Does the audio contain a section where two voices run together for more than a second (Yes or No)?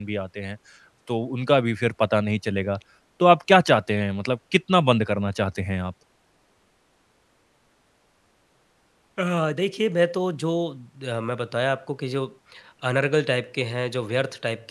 No